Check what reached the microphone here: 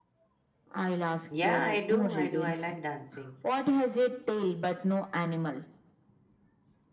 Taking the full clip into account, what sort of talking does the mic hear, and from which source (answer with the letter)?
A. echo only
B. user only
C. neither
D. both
D